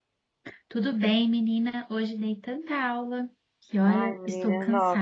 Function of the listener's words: taking over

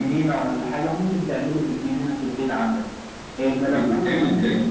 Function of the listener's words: listening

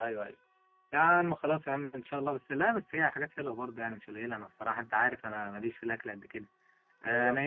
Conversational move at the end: listening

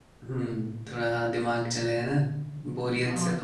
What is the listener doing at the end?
taking over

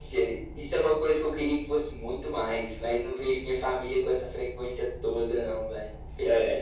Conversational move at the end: taking over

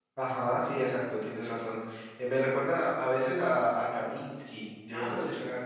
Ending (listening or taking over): taking over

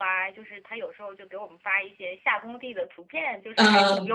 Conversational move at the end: listening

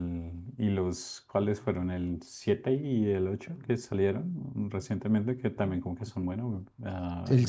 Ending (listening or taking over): taking over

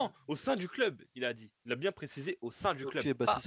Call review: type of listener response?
taking over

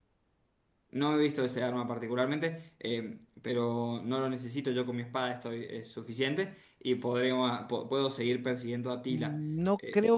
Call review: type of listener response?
taking over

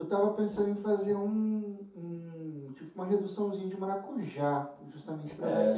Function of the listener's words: listening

